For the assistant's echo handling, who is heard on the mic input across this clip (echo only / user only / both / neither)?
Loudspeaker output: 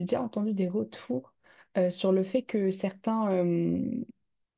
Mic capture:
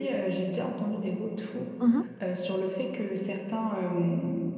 both